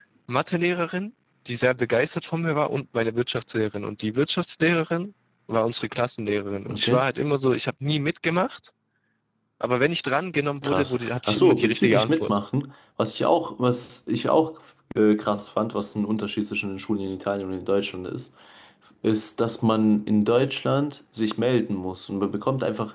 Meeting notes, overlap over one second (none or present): present